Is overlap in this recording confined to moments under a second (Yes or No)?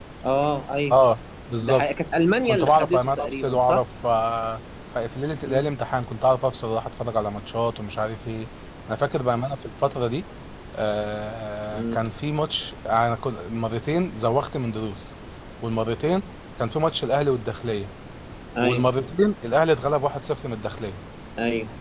No